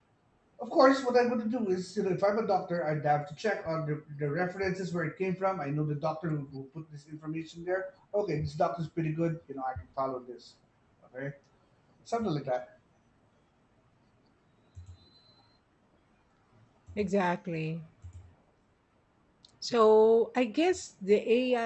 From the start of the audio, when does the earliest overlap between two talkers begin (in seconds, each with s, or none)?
none